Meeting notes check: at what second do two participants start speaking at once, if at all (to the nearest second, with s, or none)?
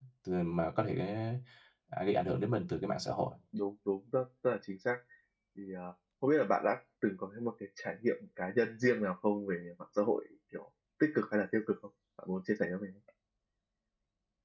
none